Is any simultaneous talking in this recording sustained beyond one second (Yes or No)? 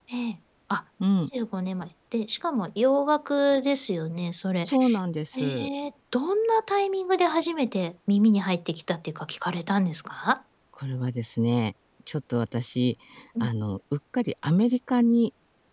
No